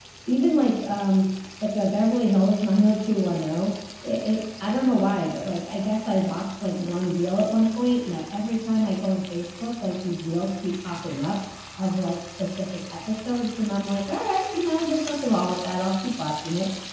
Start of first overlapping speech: none

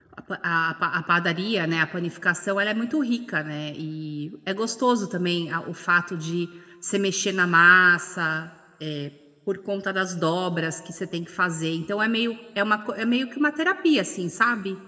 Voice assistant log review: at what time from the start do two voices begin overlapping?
none

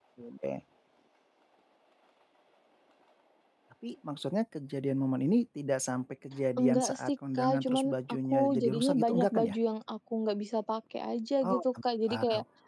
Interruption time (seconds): 7 s

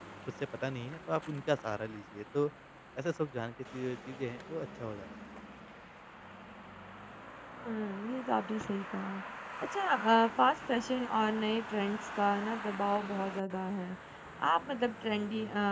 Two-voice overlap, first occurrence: none

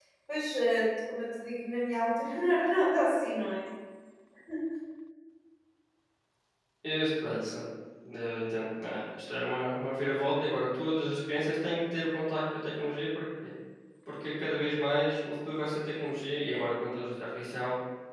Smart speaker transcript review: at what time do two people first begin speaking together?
none

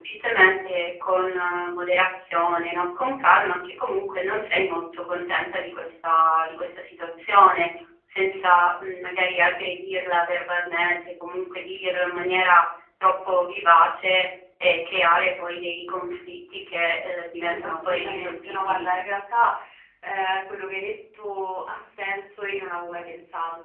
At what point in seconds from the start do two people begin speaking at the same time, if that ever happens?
17 s

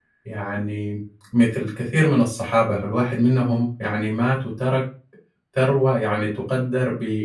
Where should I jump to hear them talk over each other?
none

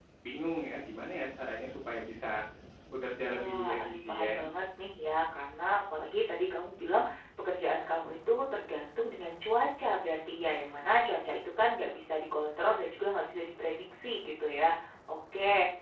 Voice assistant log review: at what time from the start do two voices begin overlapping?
3 s

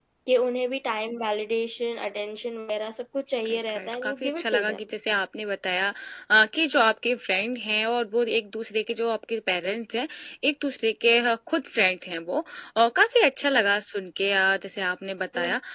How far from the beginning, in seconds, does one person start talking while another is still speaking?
3 s

